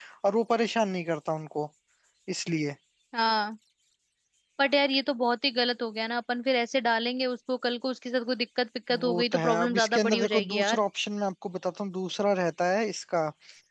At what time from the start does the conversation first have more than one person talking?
8.9 s

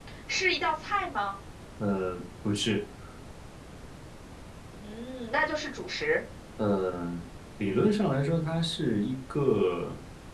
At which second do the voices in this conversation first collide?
none

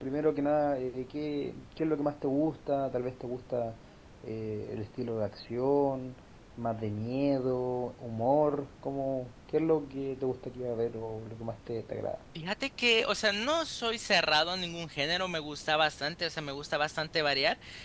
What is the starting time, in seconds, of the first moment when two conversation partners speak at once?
none

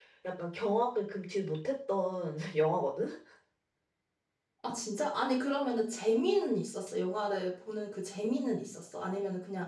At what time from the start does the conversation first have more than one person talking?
none

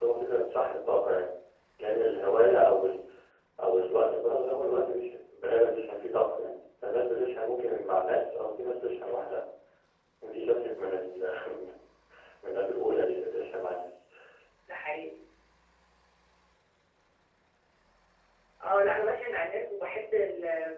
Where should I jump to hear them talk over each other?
none

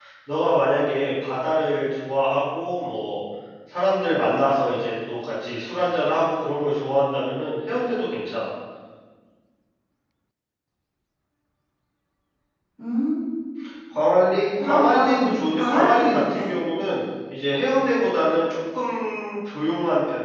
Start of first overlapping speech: 14.6 s

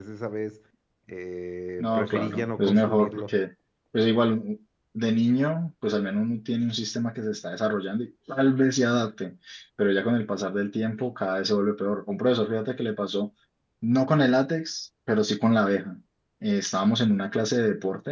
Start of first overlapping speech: 1.8 s

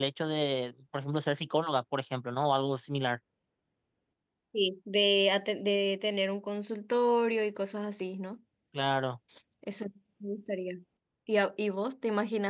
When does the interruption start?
none

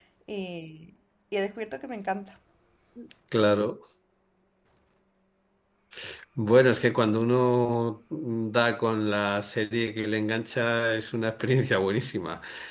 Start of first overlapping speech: none

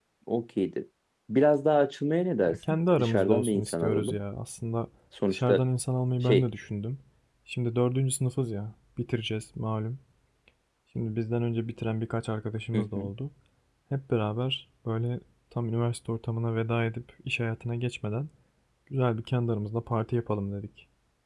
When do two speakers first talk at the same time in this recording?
2.5 s

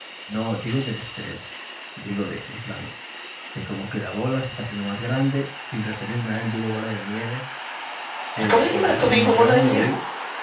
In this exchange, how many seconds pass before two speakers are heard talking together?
8.4 s

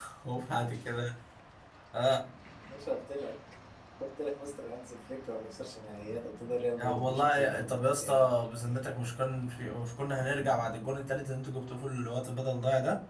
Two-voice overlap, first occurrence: 6.8 s

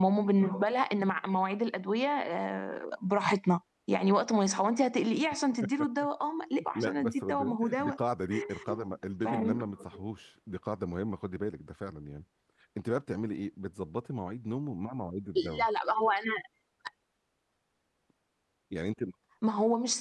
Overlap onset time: 6.8 s

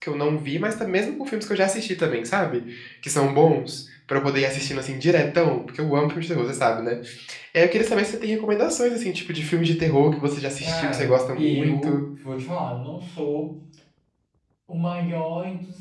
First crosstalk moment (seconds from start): 10.6 s

